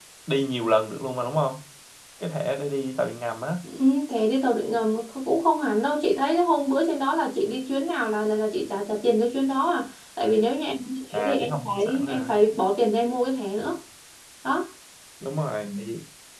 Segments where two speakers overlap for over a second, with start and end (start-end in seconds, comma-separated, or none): 11.1-12.3